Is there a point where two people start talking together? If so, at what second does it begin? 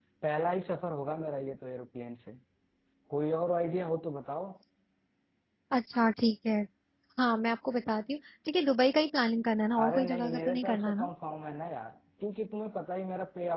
9.7 s

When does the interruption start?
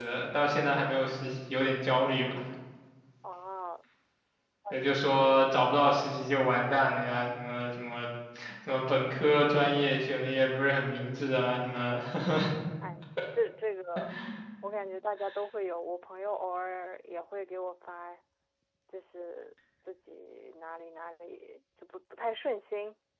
none

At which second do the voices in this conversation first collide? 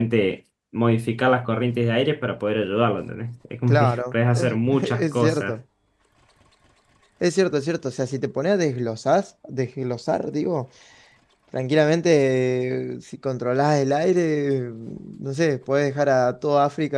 3.7 s

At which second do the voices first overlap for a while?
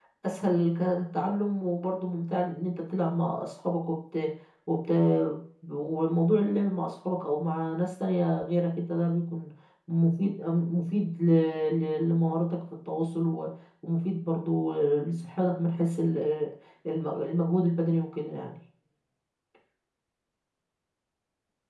none

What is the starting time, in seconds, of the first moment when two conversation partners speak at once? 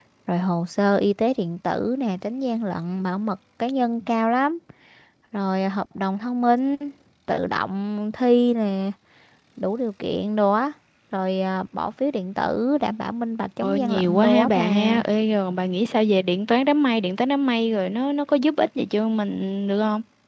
13.6 s

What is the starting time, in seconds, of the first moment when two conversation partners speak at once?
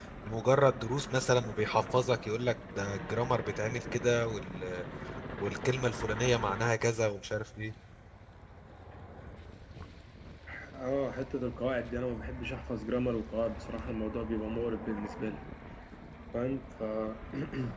none

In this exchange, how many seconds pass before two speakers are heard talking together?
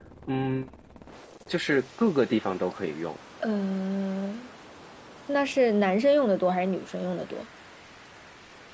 none

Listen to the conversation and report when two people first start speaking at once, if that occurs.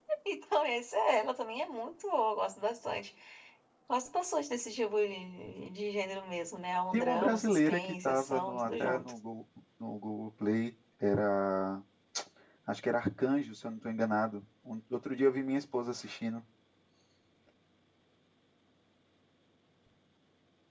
6.9 s

